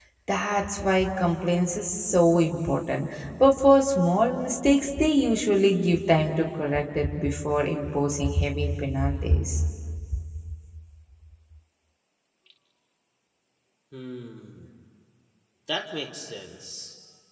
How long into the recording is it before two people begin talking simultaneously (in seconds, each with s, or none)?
none